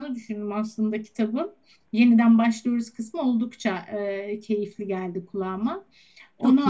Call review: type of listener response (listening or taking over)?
listening